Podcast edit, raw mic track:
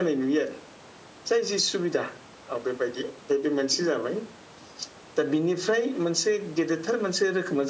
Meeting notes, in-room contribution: none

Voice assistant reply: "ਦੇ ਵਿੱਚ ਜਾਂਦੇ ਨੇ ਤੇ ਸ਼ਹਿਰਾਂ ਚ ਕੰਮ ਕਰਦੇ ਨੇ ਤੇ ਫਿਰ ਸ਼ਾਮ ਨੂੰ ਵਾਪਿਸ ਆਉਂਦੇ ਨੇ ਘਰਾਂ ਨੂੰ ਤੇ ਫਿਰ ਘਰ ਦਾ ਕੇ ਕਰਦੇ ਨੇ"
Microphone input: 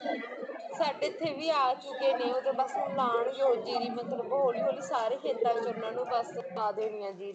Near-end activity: present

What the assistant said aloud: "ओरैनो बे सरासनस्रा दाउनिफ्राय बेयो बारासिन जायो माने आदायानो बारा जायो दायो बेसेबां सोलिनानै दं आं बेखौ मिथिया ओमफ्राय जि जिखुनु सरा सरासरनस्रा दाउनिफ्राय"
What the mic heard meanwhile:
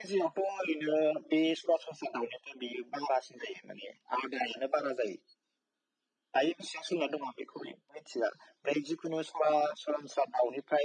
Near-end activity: none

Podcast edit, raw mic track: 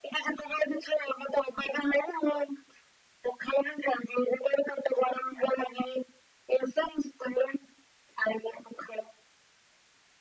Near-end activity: none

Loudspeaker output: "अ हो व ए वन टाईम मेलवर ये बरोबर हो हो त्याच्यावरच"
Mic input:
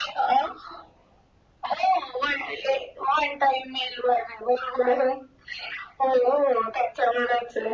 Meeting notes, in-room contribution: none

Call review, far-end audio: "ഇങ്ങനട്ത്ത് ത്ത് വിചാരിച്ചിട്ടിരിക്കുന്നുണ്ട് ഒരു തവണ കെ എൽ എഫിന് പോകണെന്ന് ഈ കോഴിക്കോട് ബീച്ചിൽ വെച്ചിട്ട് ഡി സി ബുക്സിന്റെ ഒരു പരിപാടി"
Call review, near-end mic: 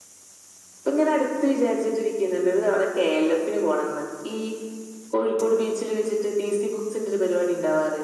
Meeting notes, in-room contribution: none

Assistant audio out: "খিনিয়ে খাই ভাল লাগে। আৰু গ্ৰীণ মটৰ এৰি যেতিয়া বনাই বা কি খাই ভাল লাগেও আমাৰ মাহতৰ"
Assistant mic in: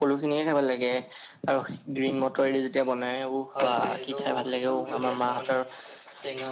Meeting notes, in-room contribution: present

